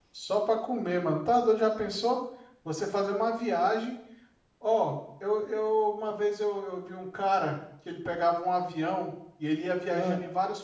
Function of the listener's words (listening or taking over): listening